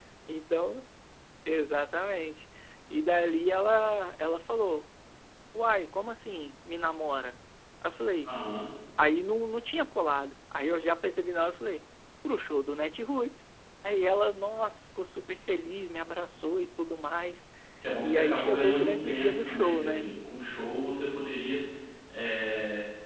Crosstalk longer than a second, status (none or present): present